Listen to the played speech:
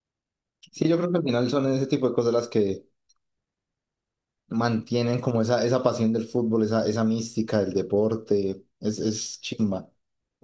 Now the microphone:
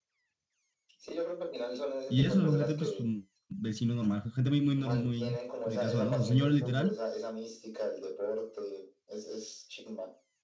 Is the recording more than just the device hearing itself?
Yes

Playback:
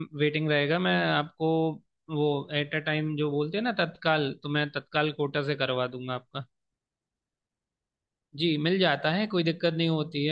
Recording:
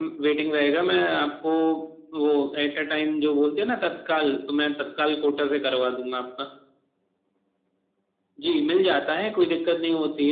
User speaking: No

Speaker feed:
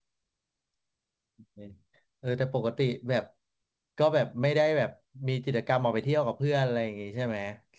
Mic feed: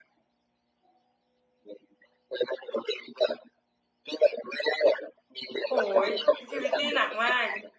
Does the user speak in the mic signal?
Yes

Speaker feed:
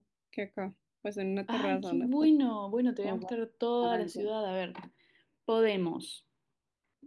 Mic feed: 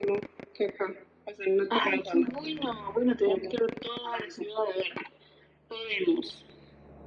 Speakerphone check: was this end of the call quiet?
Yes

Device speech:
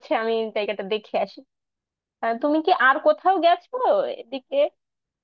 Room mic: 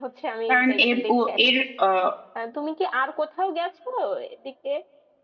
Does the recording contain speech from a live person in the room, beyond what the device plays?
Yes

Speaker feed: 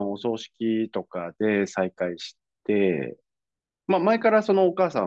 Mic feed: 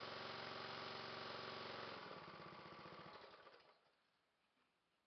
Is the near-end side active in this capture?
No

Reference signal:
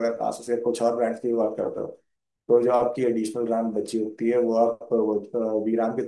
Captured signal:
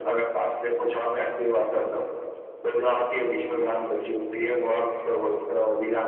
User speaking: No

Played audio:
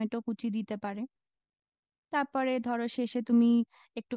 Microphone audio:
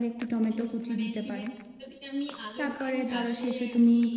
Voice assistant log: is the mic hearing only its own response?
No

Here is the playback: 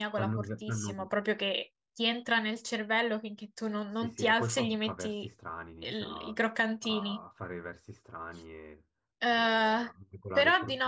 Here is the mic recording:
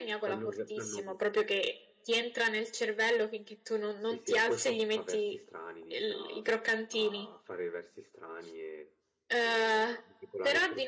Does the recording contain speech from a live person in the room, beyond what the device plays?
No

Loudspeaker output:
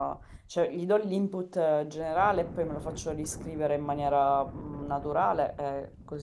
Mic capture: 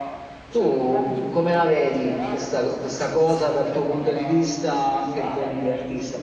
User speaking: Yes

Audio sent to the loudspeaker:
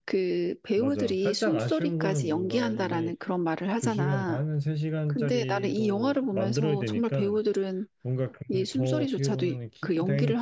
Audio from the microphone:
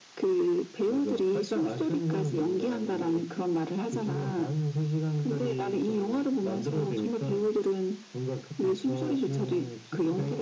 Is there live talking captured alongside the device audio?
No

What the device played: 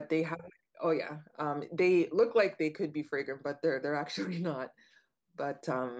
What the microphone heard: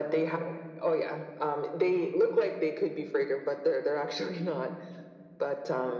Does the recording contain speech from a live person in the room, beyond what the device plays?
No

